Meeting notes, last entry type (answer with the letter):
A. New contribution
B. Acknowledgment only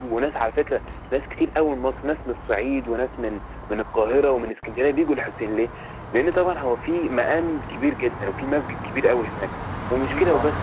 B